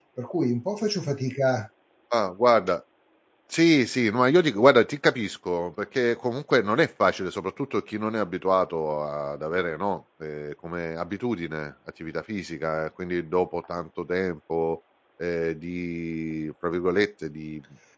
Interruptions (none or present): none